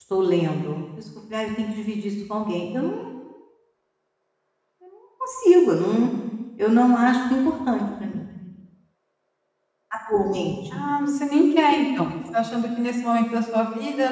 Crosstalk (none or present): none